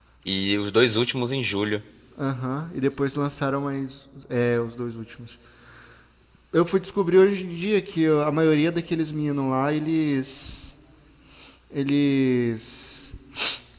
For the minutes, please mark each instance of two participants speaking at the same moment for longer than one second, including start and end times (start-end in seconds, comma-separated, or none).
none